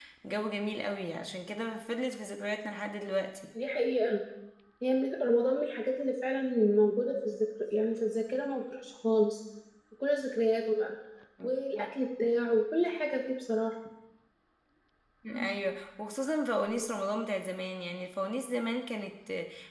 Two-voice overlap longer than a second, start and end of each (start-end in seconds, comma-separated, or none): none